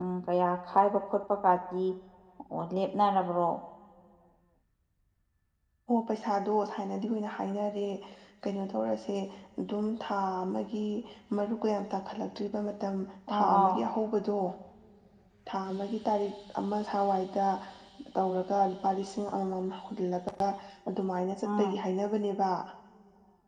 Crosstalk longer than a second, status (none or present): none